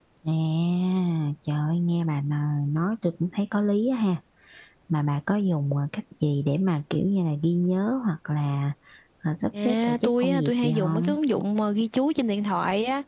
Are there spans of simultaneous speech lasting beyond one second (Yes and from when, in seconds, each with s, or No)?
Yes, from 9.6 s